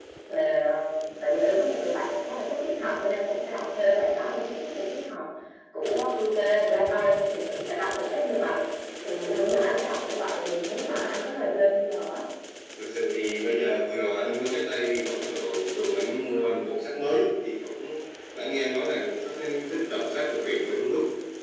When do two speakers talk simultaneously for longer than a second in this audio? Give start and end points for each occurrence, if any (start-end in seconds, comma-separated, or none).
none